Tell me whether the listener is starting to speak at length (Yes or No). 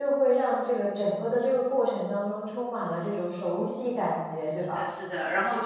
Yes